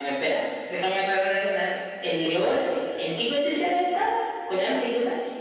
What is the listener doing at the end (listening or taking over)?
taking over